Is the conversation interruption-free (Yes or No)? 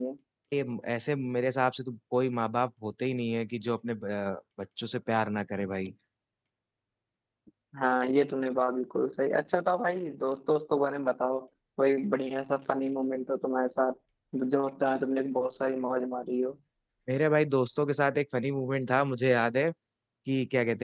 Yes